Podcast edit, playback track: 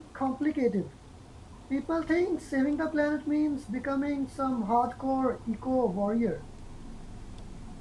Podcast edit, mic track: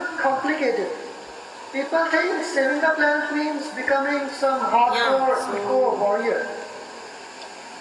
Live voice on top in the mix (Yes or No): No